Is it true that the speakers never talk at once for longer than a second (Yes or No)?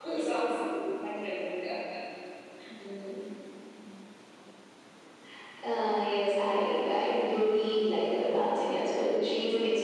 Yes